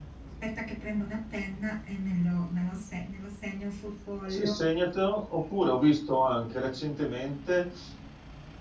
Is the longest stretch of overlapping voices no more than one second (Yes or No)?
Yes